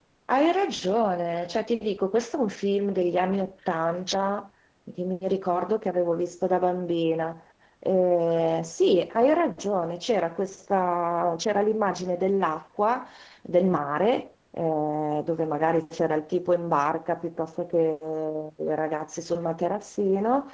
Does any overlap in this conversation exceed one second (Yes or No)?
No